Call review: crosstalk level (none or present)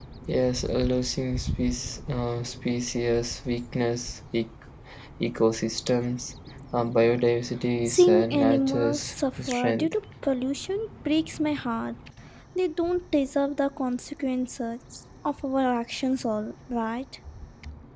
present